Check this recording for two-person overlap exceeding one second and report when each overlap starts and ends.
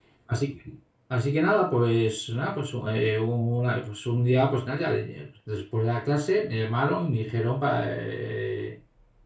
none

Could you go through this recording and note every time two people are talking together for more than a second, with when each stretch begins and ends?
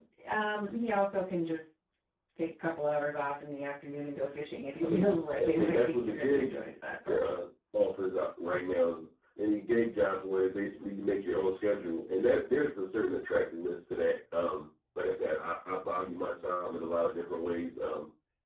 4.8-6.5

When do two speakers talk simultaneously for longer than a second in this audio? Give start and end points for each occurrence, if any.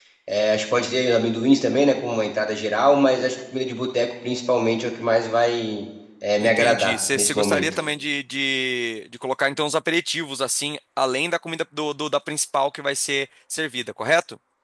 6.4-7.6

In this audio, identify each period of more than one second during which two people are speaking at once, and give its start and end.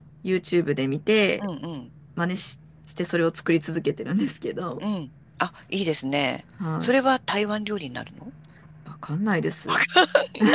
none

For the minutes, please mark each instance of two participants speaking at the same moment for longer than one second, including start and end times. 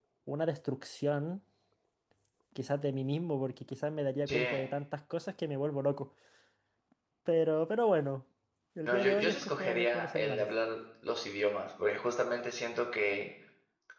8.9-10.5

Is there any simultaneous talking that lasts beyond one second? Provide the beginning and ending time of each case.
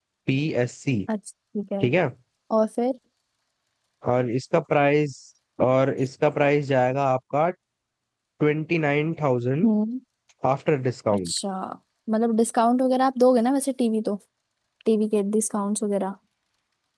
none

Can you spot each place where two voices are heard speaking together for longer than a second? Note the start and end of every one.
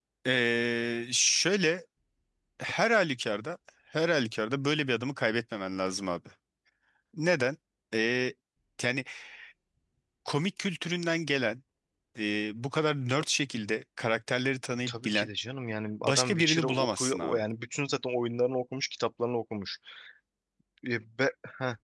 16.0-17.4

